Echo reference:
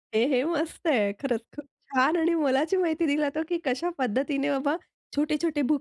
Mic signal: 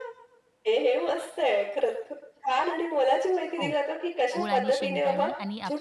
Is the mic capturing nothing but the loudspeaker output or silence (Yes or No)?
No